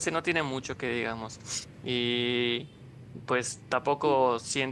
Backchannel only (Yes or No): Yes